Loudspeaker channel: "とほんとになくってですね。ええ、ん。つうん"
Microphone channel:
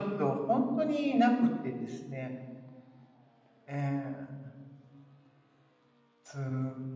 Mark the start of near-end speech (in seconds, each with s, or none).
none